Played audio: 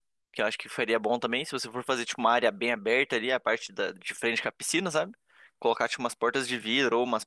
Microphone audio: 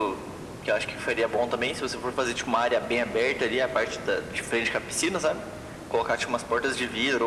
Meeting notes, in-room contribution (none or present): none